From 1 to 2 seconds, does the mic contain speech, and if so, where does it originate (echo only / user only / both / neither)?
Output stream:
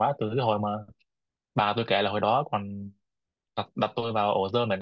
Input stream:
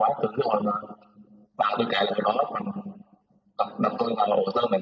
echo only